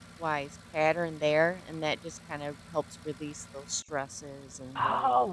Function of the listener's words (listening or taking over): taking over